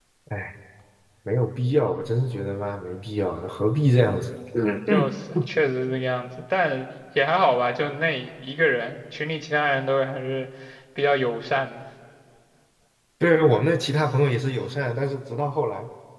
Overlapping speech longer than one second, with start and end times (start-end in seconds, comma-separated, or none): none